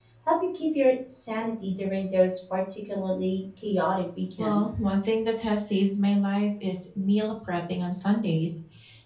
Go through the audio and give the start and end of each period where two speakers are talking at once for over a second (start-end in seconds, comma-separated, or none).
none